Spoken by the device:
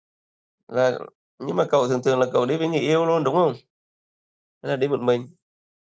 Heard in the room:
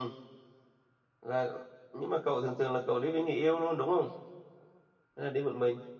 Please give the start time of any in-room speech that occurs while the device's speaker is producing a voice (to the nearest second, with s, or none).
none